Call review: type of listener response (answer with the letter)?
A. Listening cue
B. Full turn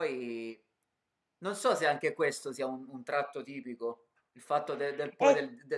A